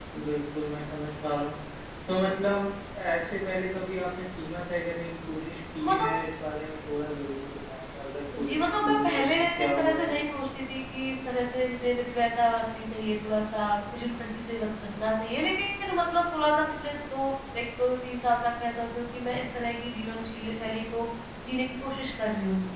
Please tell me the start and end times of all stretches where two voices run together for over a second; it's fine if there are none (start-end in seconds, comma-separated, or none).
8.4-10.1